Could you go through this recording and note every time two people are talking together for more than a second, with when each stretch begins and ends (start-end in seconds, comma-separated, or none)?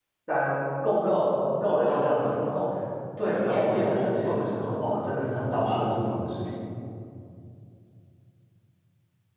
3.5-4.8